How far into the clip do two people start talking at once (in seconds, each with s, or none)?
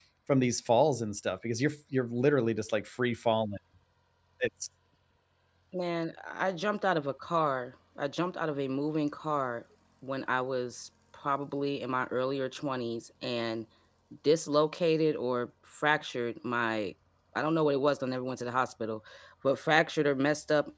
none